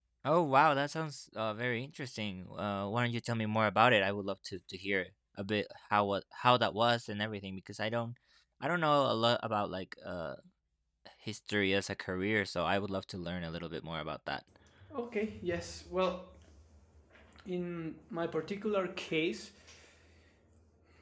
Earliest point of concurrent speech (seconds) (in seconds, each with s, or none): none